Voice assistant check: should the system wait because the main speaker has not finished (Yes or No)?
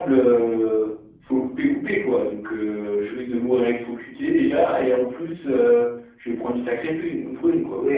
No